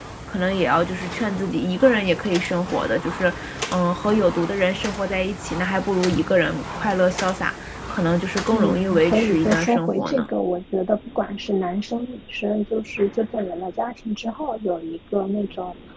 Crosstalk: present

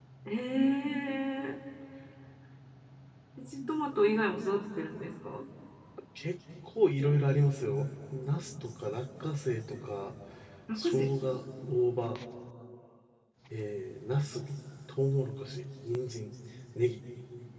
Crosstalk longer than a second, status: none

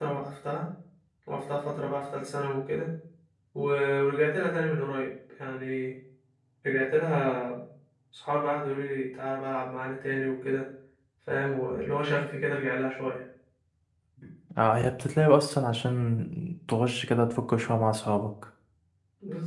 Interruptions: none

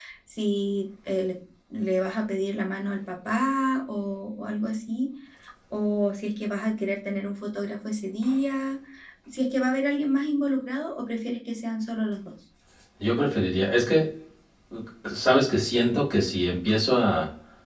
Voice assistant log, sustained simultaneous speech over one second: none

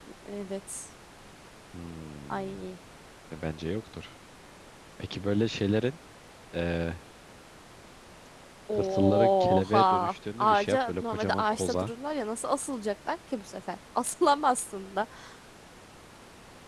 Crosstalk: present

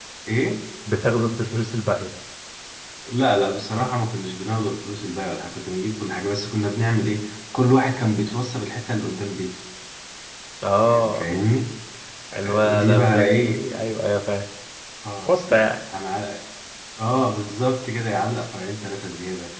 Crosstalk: present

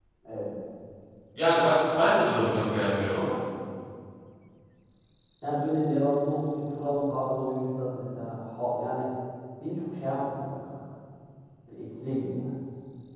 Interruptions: none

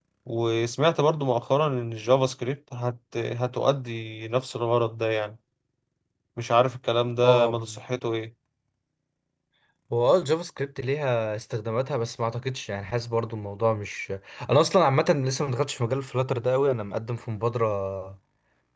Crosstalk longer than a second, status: none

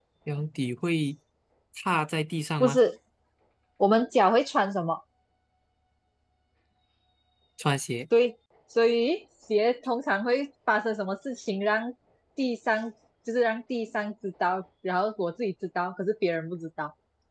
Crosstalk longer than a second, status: none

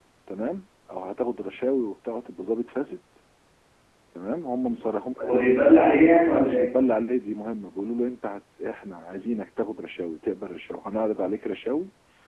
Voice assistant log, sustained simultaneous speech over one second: none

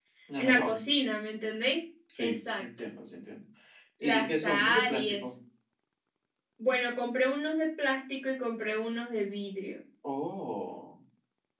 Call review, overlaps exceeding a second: present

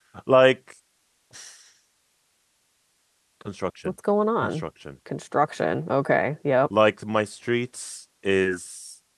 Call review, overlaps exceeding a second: none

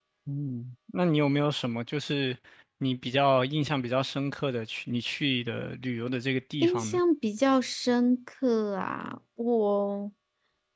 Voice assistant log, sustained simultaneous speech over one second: none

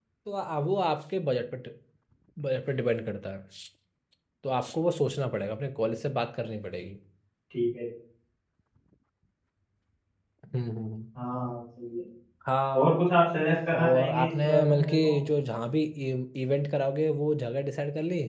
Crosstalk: present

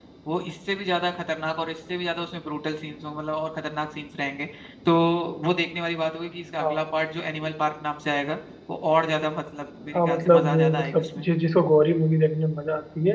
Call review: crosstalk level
present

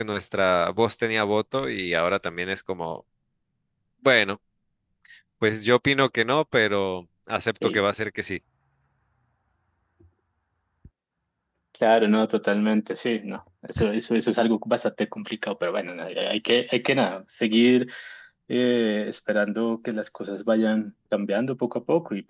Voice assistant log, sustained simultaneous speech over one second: none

